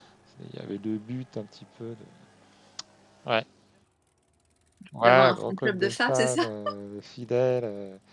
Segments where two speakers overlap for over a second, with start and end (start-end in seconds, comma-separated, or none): 5.0-6.5